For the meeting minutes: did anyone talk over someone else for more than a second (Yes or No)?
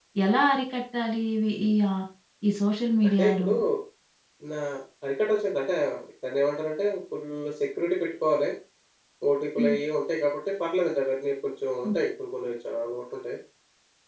No